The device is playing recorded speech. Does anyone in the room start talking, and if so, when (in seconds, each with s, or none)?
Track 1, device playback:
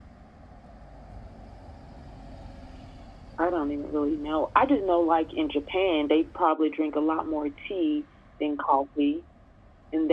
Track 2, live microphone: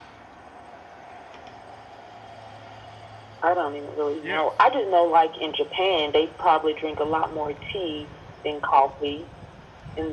4.2 s